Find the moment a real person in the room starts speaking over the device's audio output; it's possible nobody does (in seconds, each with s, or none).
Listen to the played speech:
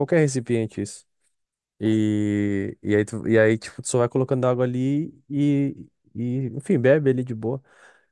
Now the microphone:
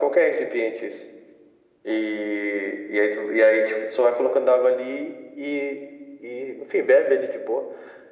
none